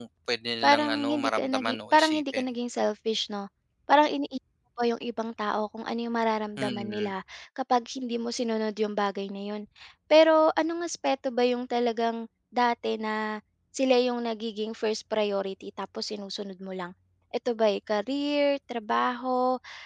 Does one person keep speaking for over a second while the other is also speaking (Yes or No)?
Yes